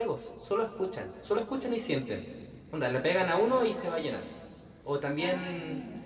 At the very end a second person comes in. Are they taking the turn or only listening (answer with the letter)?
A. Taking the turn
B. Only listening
B